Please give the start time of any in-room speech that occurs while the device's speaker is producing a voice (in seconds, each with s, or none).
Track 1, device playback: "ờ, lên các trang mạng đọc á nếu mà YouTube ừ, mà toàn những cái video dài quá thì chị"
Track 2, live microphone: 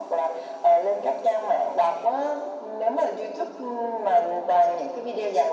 none